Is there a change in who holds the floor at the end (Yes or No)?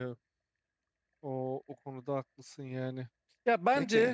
No